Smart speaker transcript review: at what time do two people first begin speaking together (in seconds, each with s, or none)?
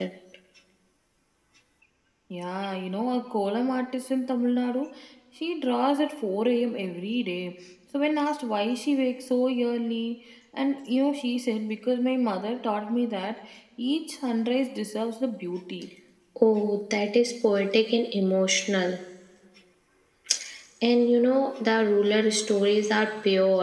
none